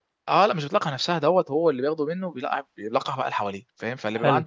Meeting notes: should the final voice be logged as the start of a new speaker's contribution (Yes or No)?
No